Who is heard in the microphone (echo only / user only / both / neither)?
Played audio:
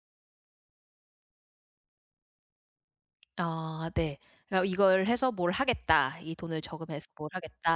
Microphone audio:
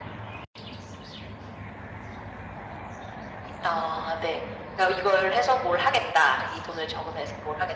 echo only